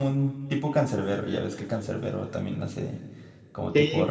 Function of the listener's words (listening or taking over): taking over